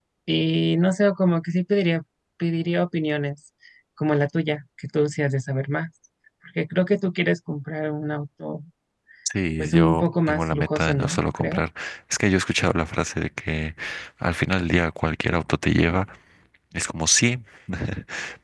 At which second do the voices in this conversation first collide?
9.6 s

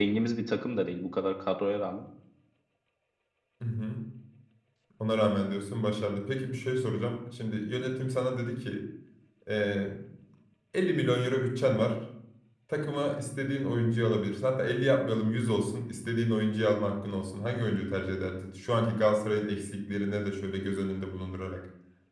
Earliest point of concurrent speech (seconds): none

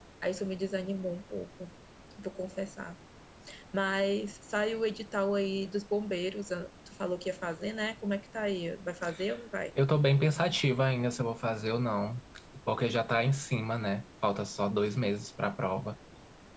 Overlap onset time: none

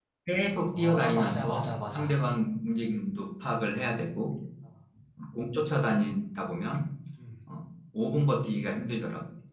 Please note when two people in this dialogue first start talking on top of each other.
0.7 s

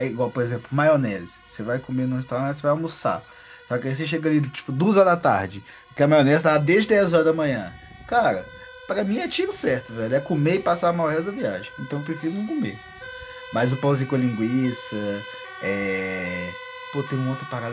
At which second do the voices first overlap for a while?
none

